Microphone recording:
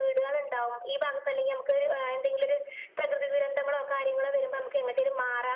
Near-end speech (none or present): none